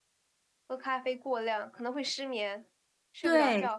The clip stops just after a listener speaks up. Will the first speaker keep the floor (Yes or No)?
No